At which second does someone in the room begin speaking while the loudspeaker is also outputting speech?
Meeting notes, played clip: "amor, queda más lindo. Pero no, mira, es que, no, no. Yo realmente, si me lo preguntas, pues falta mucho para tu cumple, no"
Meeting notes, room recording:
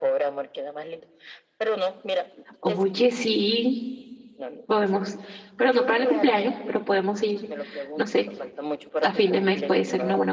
2.6 s

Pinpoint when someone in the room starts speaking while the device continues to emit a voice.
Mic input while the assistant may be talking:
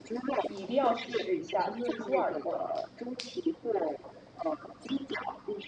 0.5 s

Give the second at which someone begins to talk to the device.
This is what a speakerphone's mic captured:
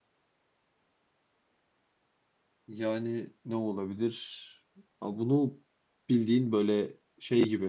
2.7 s

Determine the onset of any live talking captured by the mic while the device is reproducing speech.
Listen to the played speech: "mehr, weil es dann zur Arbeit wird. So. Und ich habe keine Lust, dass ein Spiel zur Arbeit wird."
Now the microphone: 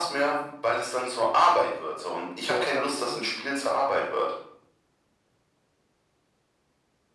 2.4 s

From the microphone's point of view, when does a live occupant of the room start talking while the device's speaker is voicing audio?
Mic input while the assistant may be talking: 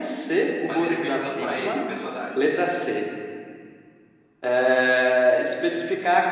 0.6 s

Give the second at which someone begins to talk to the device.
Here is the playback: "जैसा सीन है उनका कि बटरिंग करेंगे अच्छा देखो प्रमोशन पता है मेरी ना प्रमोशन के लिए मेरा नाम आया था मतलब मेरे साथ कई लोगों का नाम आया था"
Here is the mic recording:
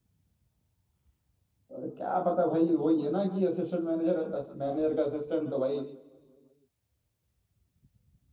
1.7 s

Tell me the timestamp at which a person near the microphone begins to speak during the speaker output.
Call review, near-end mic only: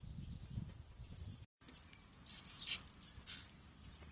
none

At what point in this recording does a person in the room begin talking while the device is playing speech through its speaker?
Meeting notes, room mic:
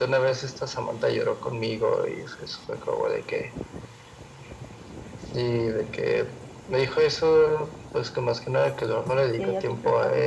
9.3 s

